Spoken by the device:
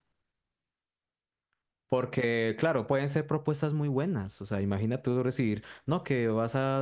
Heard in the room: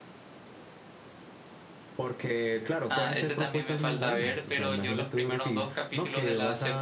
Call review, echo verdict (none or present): present